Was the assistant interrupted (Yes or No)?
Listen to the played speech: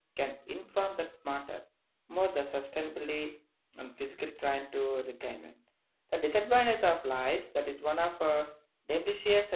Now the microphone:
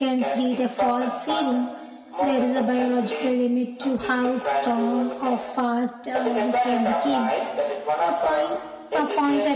Yes